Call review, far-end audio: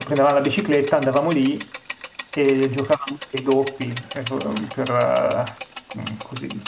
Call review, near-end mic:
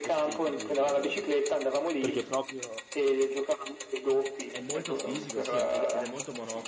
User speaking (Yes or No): Yes